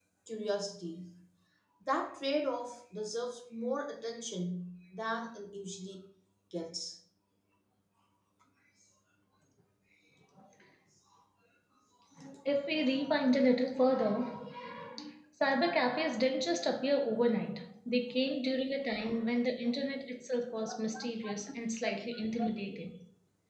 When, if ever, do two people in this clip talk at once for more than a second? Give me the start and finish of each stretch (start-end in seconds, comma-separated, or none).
none